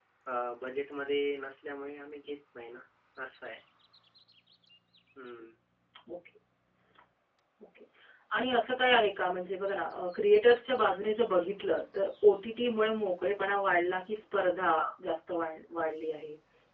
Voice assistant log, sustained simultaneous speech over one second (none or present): none